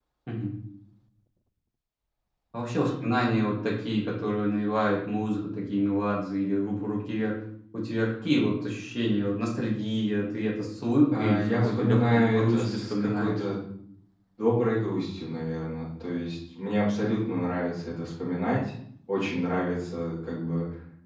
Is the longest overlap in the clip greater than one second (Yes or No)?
Yes